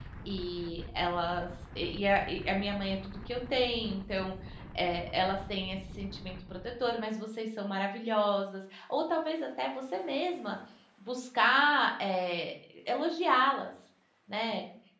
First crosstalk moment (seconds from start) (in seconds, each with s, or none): none